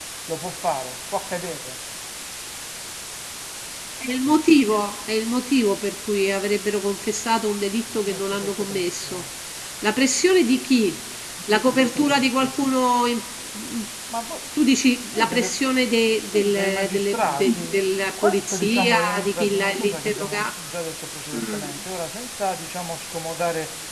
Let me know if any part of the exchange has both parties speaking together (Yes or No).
Yes